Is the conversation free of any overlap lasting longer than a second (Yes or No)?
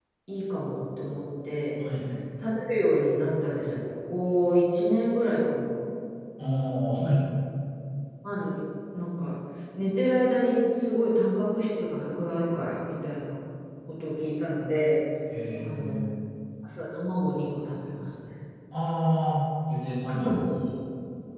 Yes